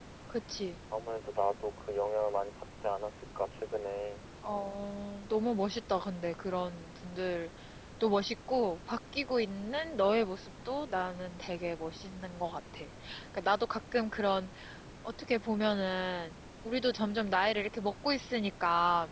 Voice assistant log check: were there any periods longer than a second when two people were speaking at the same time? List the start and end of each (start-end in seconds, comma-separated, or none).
none